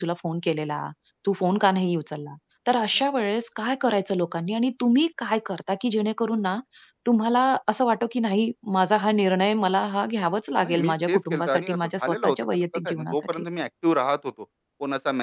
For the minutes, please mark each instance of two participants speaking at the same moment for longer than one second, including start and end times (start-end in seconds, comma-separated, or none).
10.6-13.4